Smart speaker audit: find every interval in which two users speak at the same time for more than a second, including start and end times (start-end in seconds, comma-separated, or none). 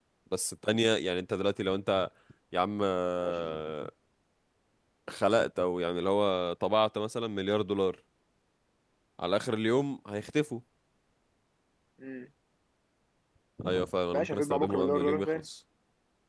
14.1-15.4